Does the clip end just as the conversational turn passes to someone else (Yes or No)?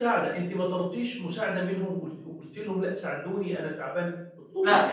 Yes